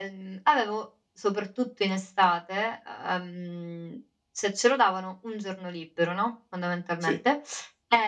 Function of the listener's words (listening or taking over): listening